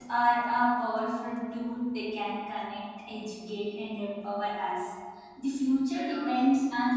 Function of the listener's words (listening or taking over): listening